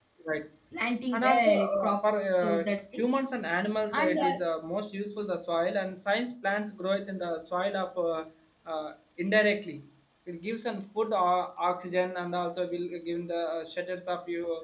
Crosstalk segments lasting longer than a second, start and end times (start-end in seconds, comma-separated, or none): 1.1-3.0